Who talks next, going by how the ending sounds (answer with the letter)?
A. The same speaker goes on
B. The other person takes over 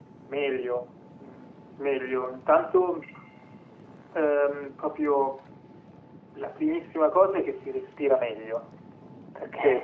A